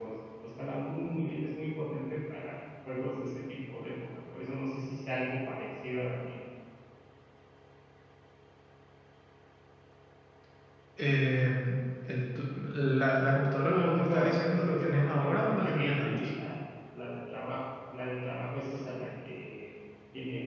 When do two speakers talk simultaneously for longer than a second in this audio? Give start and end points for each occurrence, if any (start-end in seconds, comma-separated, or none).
13.6-16.3